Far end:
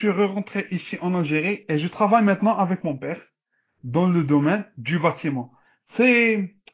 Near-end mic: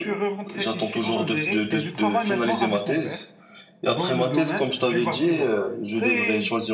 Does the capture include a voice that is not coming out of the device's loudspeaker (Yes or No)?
Yes